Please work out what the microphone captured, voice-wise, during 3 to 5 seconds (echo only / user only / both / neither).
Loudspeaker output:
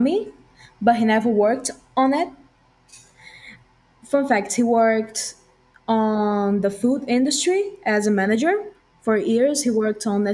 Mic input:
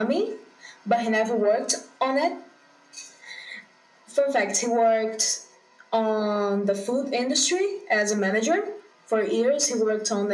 echo only